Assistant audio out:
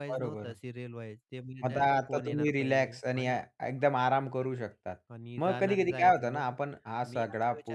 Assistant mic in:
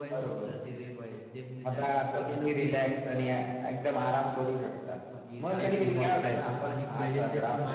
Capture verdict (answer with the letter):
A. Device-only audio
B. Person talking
B